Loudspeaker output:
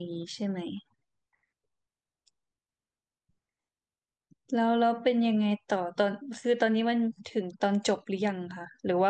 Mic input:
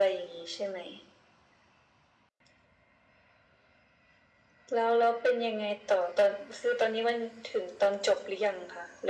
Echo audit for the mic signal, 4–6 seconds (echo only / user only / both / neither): echo only